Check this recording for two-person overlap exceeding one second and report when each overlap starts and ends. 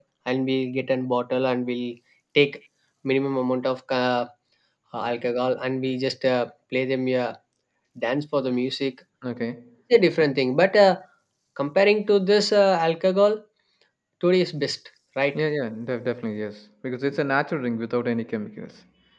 none

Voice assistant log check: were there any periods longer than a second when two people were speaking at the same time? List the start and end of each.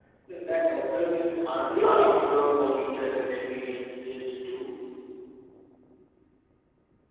0.9-2.4

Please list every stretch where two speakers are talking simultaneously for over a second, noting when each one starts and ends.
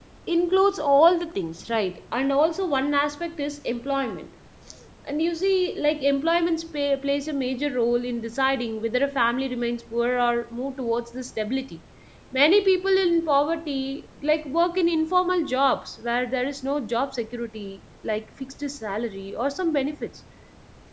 none

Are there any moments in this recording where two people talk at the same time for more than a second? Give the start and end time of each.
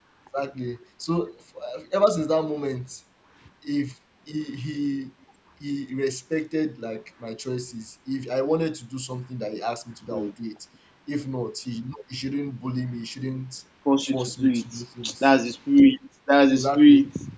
14.0-15.3

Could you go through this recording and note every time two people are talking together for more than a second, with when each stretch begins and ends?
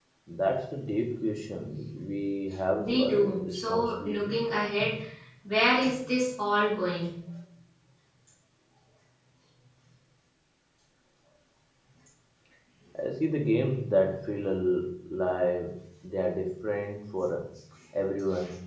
2.8-4.3

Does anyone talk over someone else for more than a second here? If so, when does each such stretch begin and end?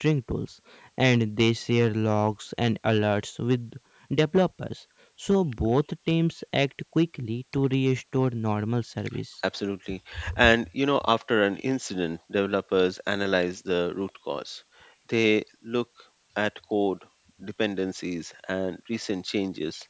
none

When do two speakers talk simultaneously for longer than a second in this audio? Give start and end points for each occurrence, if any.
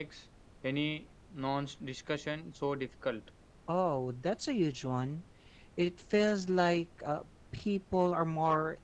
none

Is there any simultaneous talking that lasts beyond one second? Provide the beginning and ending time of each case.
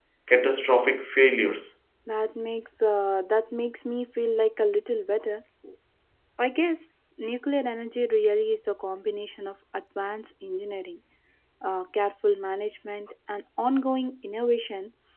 none

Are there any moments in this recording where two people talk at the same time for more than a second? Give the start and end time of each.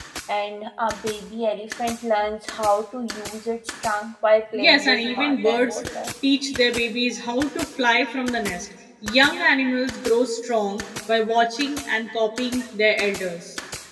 4.5-5.8

